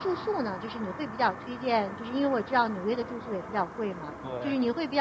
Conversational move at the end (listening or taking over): listening